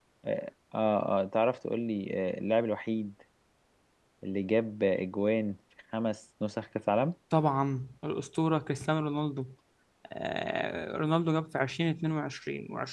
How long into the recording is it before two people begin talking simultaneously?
none

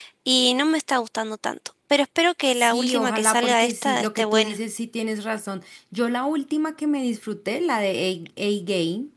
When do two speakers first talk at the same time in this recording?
2.5 s

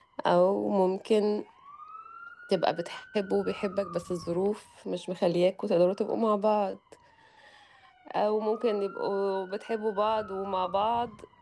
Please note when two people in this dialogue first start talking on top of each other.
none

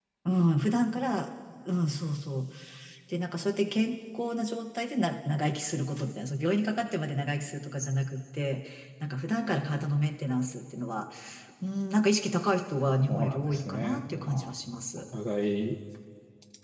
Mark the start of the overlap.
13.1 s

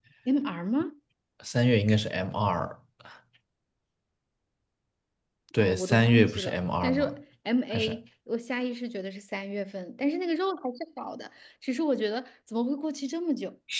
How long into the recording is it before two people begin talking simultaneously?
5.6 s

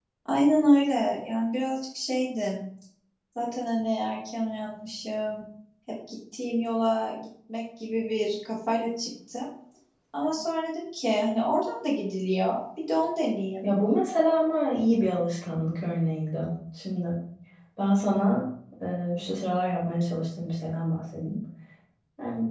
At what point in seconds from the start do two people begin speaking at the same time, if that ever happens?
none

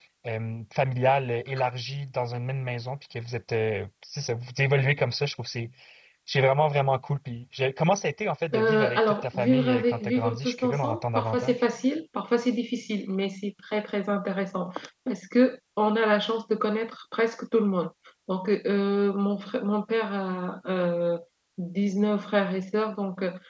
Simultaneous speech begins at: 8.5 s

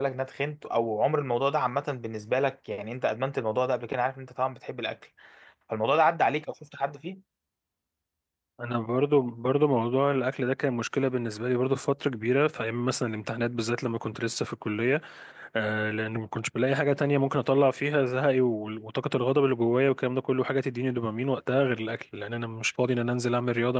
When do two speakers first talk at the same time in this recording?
none

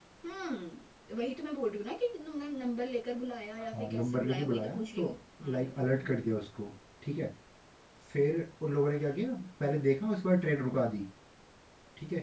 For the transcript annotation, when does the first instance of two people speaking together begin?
3.7 s

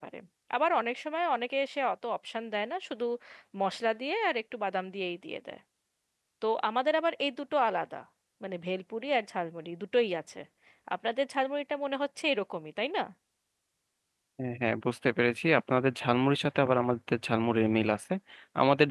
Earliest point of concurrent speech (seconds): none

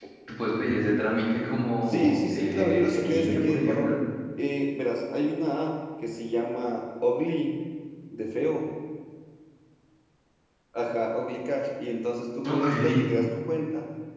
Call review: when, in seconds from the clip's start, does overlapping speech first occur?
1.9 s

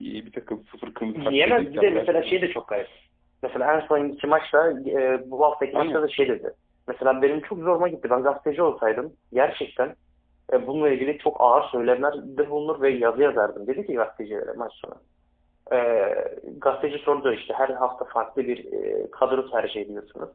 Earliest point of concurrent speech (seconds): 1.1 s

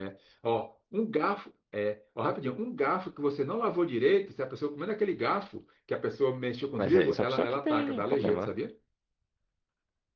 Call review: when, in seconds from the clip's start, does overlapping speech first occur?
6.8 s

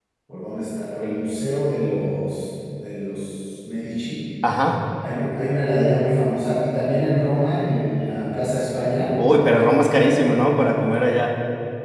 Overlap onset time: none

